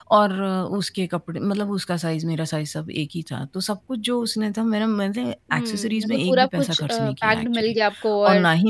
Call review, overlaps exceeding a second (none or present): present